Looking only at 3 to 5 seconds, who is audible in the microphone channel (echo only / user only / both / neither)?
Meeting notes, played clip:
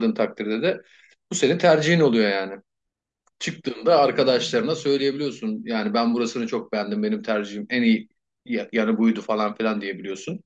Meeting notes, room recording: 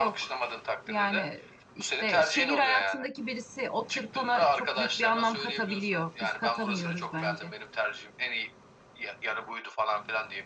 both